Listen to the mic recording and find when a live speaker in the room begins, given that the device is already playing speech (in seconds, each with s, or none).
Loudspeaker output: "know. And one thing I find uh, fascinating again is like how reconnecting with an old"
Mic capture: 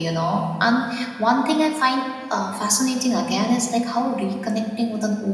none